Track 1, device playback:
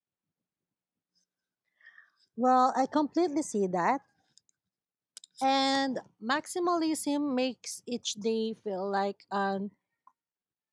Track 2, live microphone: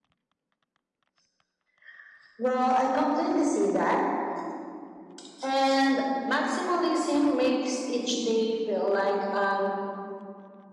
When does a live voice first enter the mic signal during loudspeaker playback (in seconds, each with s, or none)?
none